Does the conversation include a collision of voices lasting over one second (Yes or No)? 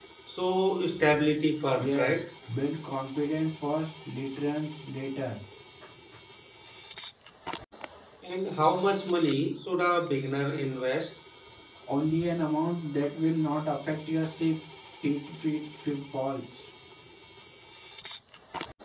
No